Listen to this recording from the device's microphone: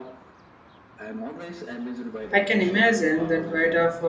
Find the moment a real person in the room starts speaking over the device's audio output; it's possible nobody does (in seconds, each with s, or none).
2.3 s